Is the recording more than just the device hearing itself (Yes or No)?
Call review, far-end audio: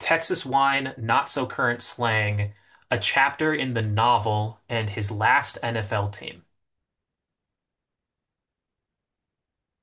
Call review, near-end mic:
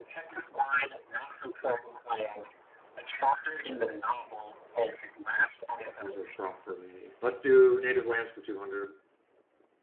Yes